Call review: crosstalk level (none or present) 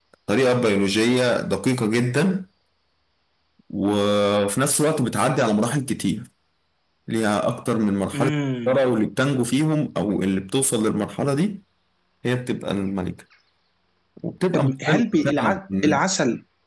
present